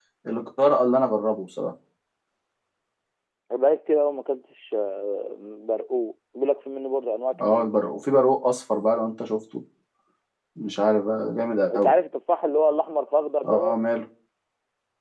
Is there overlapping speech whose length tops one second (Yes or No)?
No